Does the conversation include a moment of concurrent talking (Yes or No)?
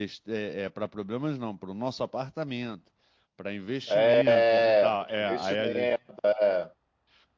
Yes